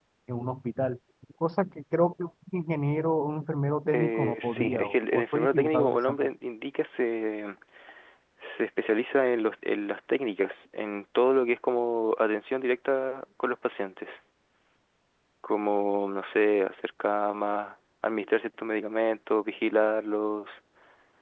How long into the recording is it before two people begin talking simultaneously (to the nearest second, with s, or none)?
4 s